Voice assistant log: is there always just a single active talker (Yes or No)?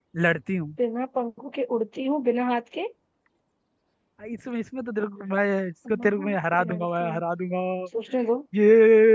No